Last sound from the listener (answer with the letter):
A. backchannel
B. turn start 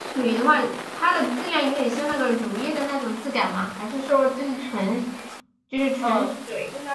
B